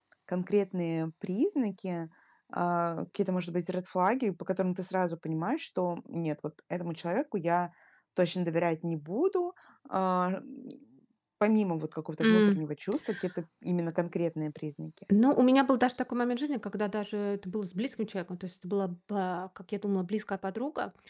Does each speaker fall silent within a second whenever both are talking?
Yes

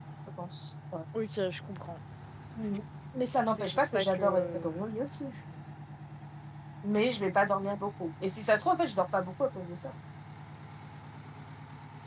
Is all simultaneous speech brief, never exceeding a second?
No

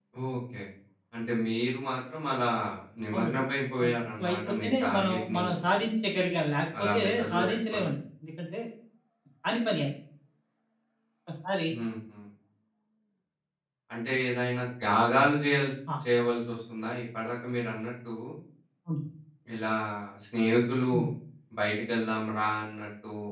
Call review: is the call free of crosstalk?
No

